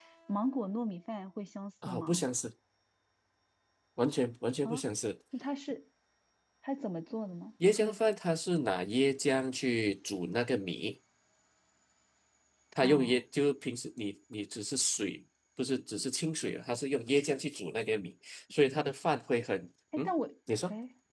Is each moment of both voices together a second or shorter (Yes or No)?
Yes